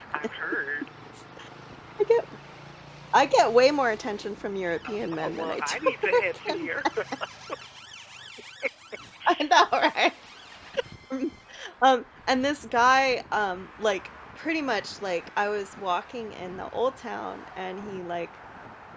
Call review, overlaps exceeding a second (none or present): present